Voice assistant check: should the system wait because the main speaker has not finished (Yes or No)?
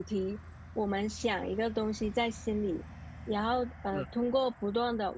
Yes